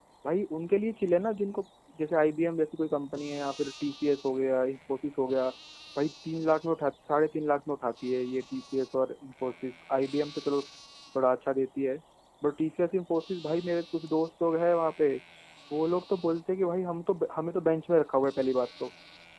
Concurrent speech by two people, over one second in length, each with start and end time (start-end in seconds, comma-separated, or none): none